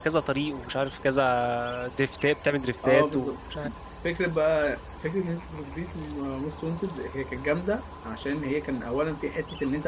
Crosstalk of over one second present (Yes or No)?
No